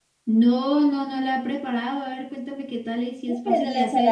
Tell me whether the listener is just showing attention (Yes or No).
No